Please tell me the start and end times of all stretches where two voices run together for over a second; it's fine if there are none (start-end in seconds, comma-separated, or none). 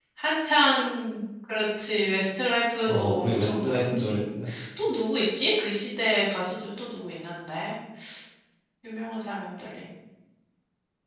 2.9-4.1